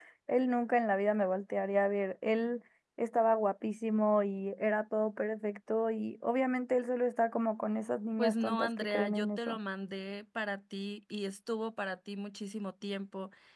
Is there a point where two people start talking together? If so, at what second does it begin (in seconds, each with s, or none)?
8.2 s